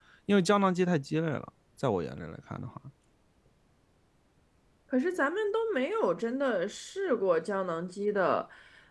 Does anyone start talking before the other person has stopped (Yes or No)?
No